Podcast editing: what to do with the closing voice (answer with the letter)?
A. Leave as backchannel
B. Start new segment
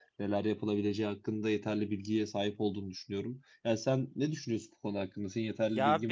B